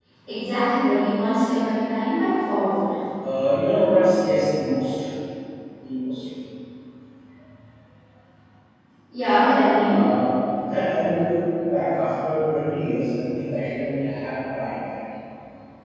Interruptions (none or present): none